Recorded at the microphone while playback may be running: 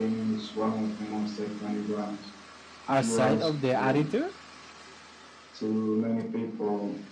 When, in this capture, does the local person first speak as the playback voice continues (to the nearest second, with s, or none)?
3 s